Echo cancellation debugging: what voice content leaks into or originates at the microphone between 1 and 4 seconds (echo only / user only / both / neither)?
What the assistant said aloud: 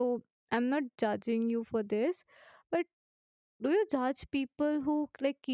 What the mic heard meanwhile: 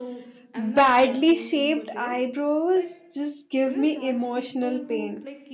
both